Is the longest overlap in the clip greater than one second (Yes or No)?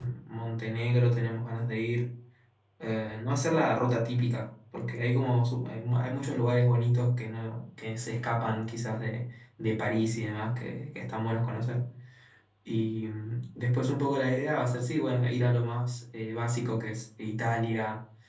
No